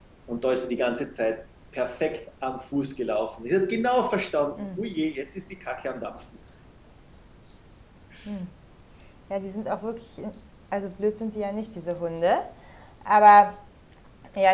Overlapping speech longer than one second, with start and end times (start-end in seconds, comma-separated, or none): none